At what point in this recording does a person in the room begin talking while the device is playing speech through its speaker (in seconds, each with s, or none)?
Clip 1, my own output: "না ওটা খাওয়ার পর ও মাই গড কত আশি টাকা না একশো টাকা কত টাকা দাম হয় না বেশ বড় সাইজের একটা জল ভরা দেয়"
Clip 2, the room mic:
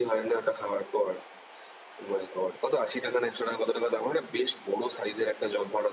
none